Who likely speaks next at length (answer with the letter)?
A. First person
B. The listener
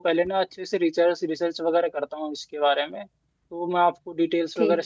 A